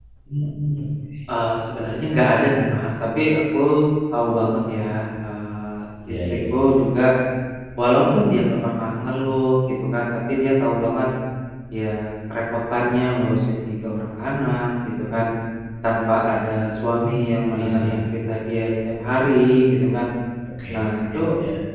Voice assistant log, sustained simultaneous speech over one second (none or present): none